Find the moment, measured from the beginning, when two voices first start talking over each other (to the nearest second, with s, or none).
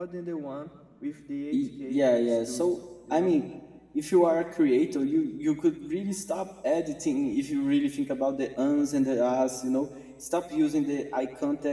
2 s